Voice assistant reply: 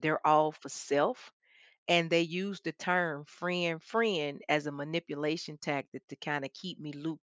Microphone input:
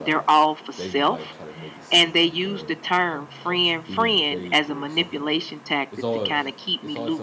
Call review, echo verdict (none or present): present